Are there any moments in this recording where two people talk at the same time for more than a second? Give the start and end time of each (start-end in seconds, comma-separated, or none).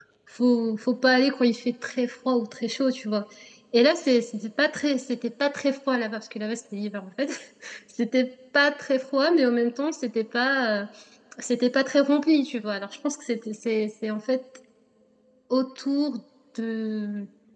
none